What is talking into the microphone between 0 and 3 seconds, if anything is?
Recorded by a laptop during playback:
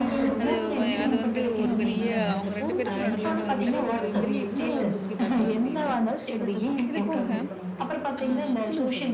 both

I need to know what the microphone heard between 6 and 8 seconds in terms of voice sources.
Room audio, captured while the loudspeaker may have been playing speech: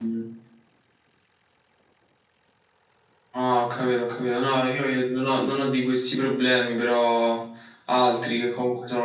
user only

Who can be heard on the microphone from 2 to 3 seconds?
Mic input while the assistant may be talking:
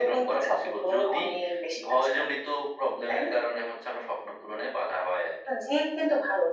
echo only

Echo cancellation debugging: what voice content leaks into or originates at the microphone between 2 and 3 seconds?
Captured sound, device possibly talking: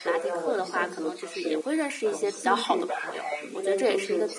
both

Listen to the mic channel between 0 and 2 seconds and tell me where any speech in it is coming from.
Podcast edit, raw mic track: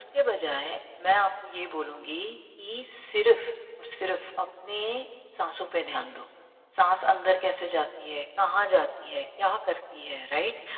echo only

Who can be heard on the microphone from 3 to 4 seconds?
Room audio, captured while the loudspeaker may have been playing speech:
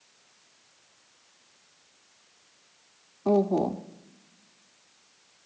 user only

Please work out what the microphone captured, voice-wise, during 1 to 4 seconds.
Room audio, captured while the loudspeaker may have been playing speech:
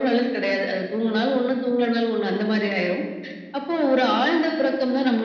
echo only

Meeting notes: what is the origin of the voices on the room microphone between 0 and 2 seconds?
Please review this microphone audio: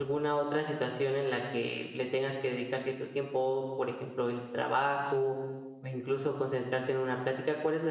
user only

